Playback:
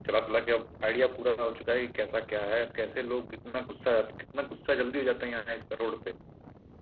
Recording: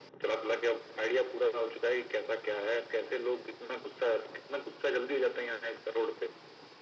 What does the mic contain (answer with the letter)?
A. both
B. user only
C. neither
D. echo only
D